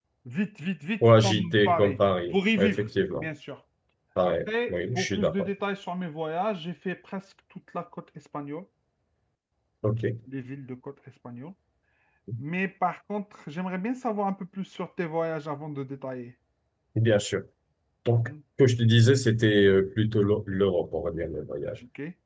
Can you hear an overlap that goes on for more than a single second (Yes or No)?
Yes